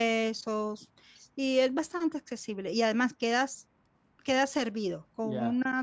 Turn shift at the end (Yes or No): No